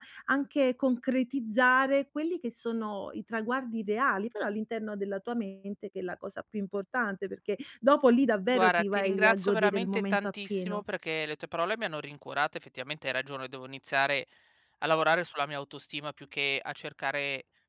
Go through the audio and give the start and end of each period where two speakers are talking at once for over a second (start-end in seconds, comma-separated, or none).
8.5-10.8